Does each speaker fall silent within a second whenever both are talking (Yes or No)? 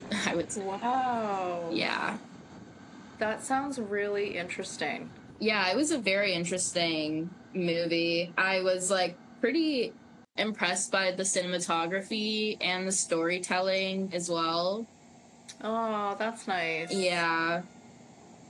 Yes